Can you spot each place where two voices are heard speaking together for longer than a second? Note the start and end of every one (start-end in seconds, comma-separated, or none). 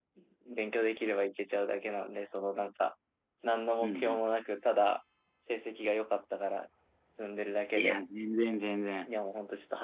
none